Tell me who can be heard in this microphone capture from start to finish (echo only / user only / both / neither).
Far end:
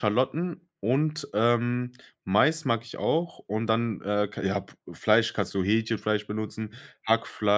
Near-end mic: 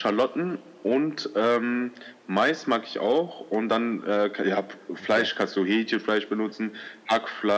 both